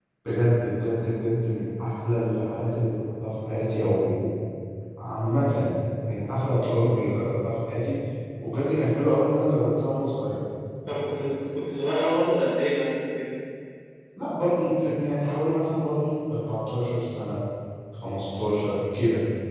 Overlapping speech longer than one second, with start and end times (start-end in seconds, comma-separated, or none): none